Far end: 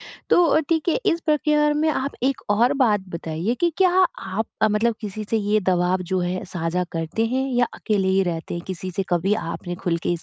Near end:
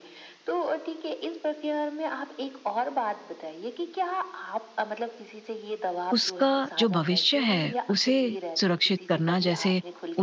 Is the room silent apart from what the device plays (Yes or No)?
No